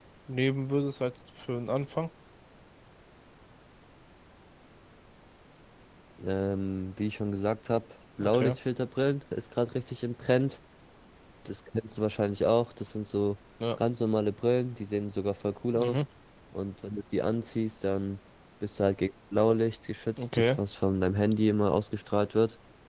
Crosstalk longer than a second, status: none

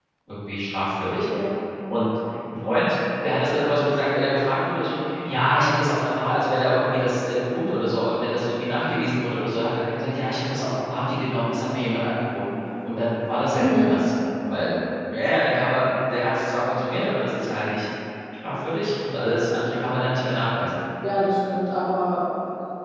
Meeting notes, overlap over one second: none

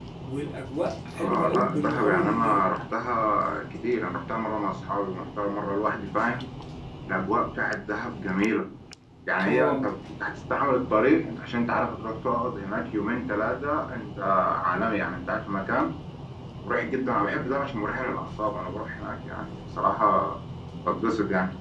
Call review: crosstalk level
present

